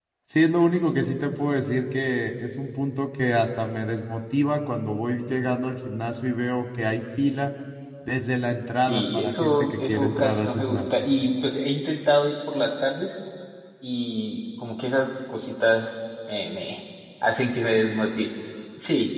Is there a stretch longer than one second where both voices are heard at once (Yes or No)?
Yes